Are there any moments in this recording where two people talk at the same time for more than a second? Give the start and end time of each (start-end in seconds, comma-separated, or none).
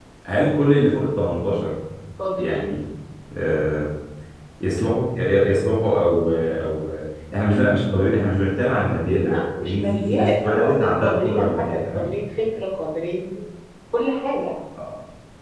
9.1-12.1